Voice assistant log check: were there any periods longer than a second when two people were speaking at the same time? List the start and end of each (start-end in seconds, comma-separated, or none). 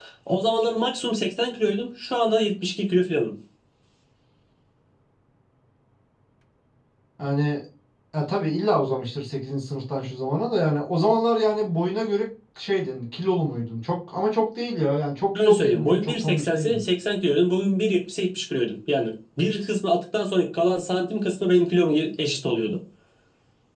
15.4-16.8